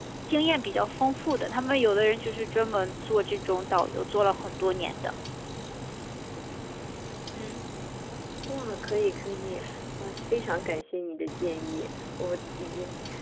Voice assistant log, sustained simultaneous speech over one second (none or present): none